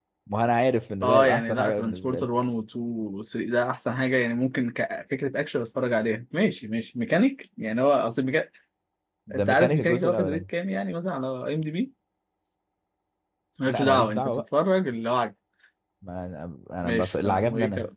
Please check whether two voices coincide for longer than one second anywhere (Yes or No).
Yes